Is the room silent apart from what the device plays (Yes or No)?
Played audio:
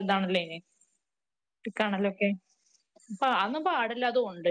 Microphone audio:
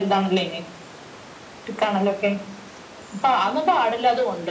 Yes